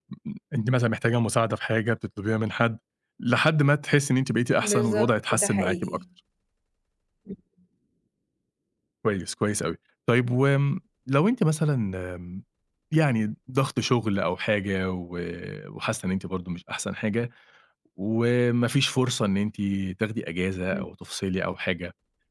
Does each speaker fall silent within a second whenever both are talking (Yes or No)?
No